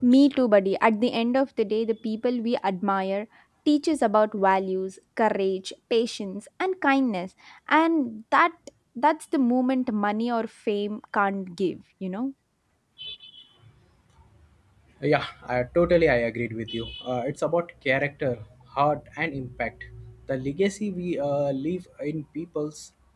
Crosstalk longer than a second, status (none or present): none